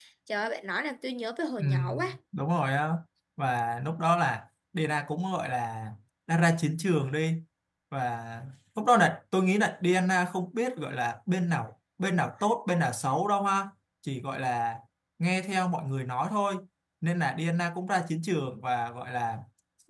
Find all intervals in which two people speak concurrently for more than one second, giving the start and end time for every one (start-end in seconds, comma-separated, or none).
none